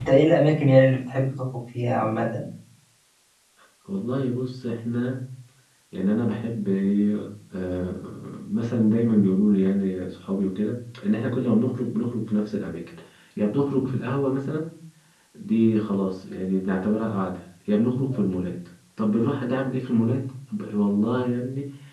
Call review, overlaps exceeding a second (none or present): none